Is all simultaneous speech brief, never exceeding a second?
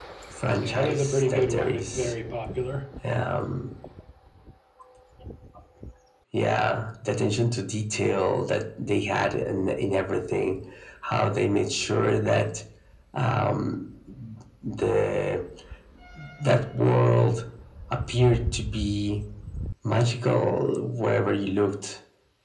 No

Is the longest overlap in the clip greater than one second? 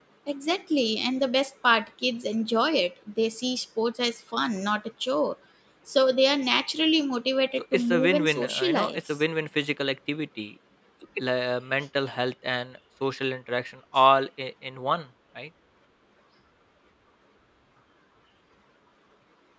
Yes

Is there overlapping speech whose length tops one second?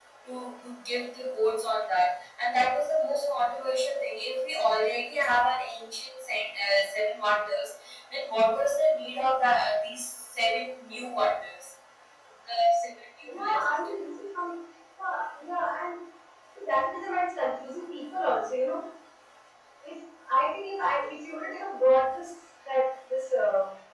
No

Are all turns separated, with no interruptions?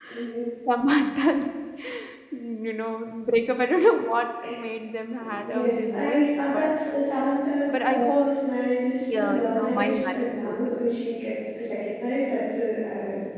No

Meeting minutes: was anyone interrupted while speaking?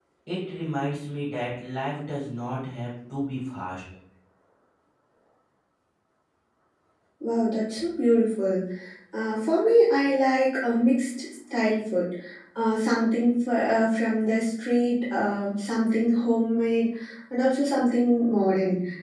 No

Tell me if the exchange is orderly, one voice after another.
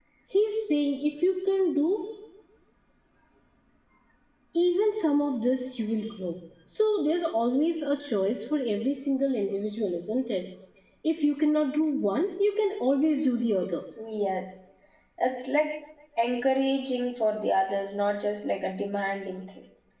Yes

